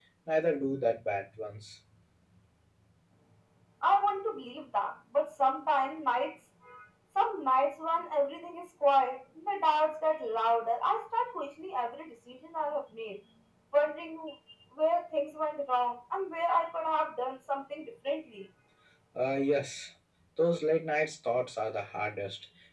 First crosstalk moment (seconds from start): none

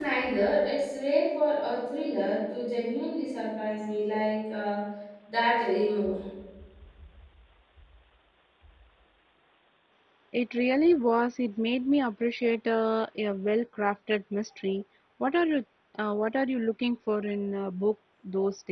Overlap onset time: none

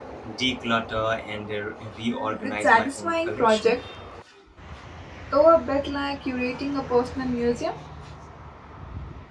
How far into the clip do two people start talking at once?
2.1 s

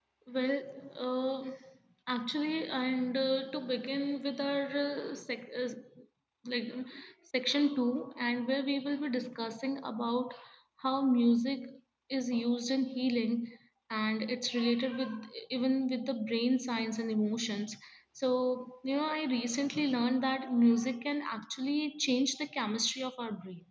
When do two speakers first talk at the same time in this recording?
none

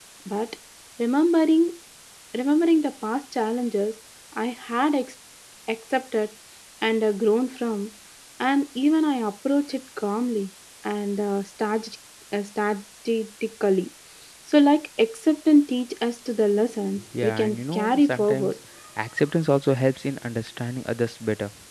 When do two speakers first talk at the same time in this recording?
17.2 s

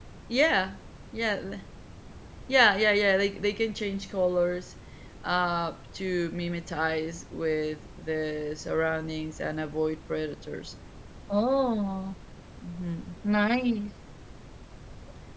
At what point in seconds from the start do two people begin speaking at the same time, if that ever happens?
none

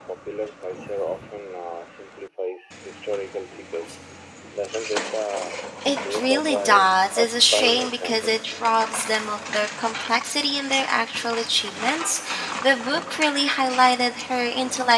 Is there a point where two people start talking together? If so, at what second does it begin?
6.1 s

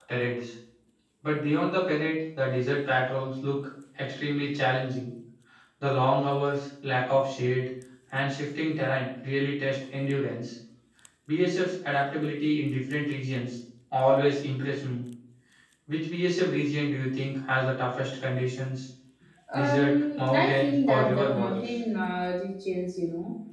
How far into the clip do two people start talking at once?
19.5 s

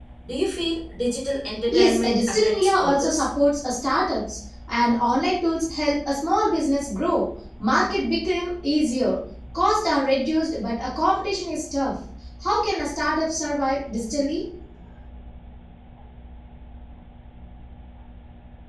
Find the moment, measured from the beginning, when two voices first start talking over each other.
1.7 s

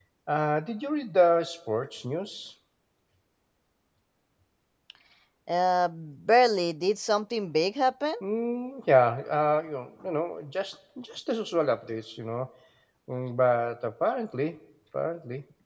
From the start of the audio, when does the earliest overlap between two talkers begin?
none

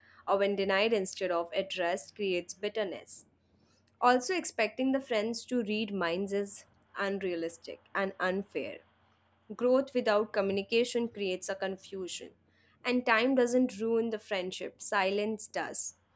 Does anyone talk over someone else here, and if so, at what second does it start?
none

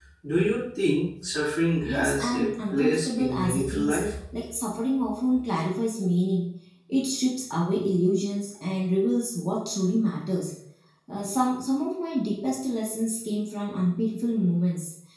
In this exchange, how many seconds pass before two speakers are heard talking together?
1.8 s

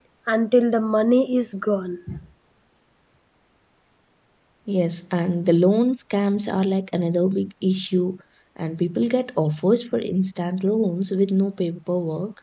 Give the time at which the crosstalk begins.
none

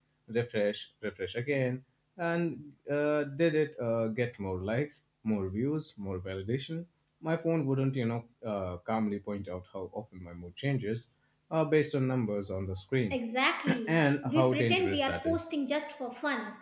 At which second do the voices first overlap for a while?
13.9 s

